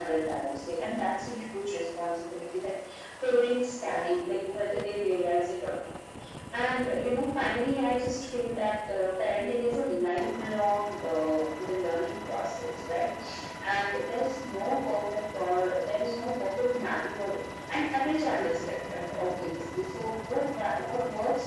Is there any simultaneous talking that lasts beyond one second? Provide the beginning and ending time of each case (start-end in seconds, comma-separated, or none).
none